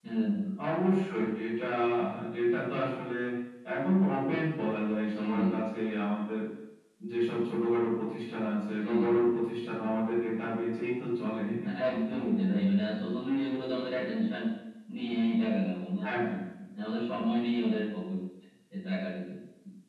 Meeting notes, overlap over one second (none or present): none